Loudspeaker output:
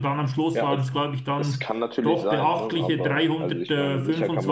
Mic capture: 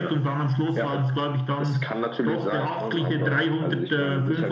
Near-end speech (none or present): none